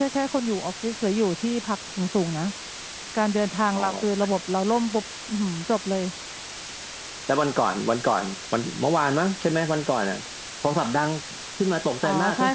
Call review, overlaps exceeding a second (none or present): none